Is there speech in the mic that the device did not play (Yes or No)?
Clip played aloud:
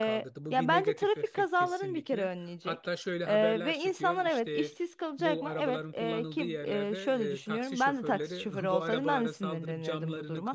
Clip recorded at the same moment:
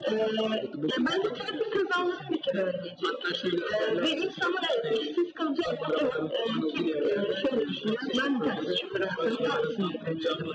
No